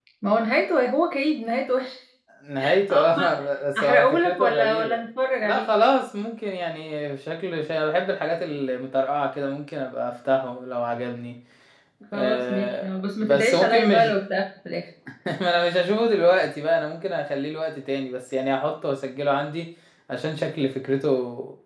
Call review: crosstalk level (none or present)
present